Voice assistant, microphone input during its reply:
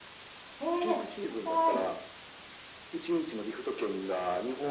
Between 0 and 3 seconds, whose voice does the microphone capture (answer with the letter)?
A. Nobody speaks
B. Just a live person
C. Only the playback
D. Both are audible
D